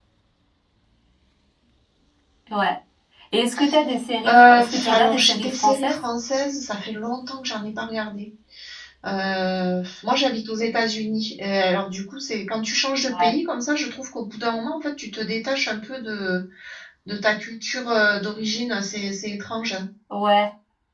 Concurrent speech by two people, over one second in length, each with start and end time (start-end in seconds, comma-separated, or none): 4.2-6.0